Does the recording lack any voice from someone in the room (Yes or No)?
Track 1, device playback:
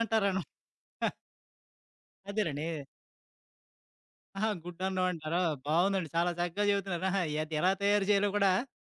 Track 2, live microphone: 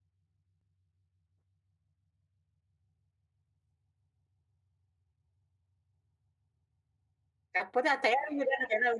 No